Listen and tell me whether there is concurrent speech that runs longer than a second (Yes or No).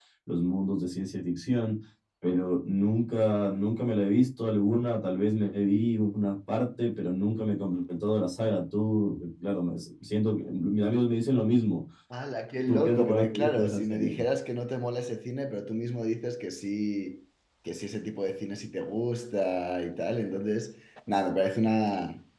Yes